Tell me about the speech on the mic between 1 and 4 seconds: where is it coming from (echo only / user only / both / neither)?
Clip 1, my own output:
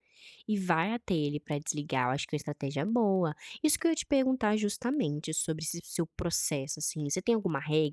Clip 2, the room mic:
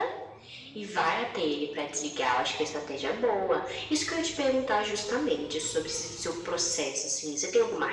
echo only